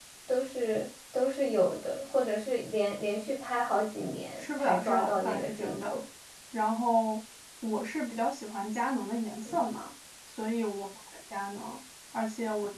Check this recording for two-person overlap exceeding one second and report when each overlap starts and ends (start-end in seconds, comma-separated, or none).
4.4-5.9